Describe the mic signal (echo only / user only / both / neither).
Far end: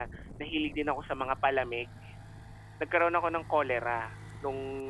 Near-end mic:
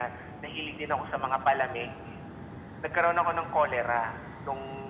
echo only